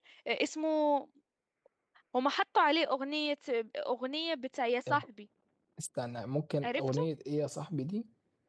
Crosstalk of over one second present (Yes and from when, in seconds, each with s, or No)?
No